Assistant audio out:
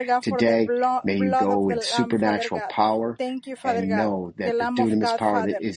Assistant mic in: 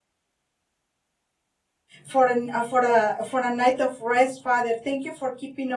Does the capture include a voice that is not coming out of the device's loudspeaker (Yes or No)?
Yes